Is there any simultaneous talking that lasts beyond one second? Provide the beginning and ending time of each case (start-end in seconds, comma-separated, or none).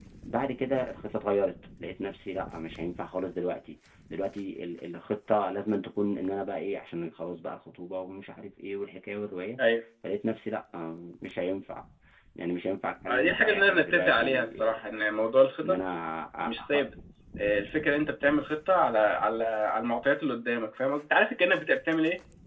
13.1-14.5